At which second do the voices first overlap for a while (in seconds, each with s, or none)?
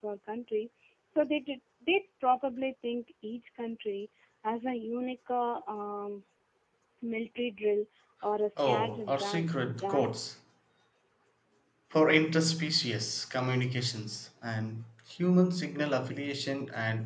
8.6 s